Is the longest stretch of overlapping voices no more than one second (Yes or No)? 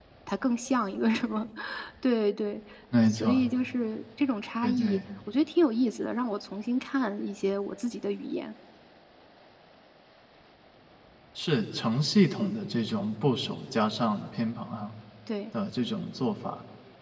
Yes